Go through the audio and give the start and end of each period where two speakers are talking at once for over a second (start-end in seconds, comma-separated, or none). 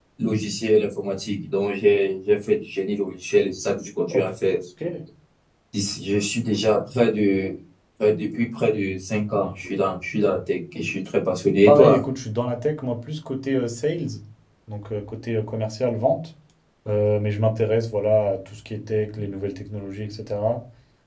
none